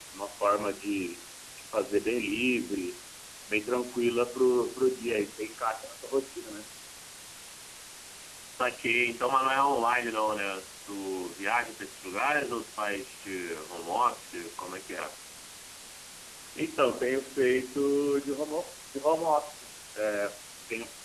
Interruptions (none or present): none